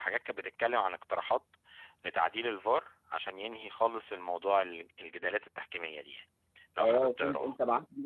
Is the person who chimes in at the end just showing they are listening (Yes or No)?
No